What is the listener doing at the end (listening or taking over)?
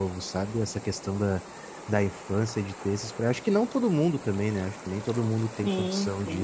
listening